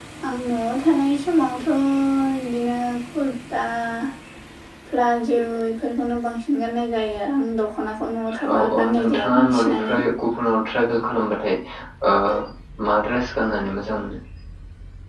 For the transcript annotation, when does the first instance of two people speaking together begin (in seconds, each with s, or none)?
8.4 s